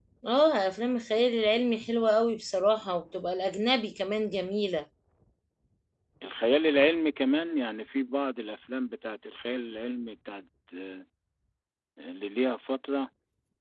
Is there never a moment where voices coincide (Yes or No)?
Yes